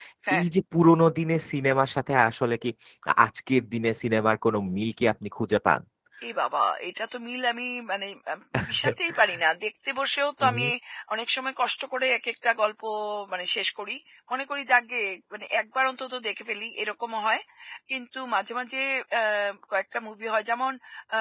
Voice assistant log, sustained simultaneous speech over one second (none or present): none